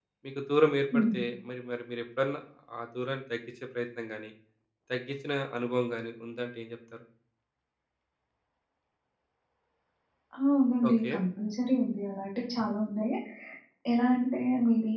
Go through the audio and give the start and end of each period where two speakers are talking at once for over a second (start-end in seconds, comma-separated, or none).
none